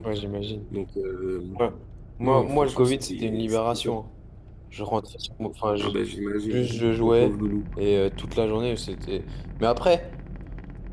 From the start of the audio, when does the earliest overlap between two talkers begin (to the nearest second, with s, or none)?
2 s